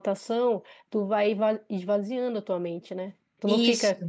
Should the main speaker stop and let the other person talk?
No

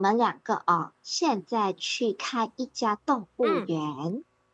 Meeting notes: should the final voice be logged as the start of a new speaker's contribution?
No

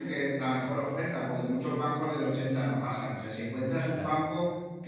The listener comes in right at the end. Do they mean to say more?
No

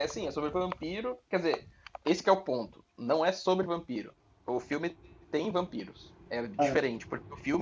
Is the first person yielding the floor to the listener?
No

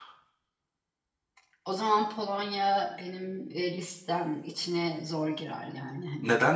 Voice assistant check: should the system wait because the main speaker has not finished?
No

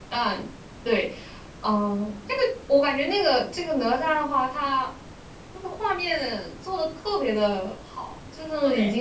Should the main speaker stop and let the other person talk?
No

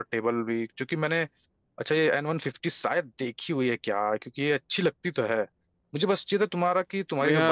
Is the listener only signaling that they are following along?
Yes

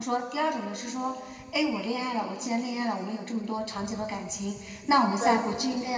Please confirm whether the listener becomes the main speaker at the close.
No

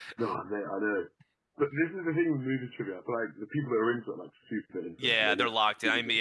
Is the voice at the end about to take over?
Yes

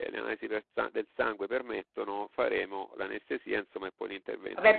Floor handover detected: Yes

